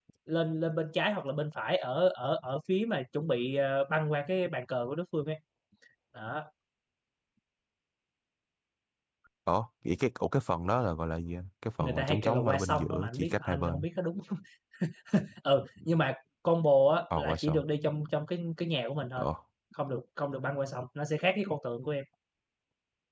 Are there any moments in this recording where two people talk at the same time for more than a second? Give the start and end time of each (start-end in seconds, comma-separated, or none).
11.8-13.8